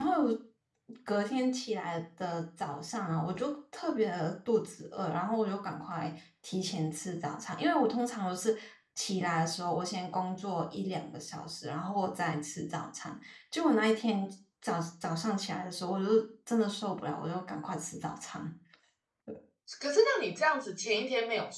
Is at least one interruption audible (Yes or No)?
No